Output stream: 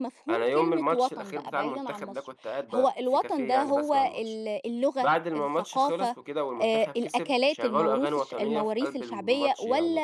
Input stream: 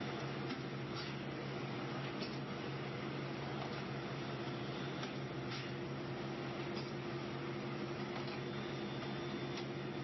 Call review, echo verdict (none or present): none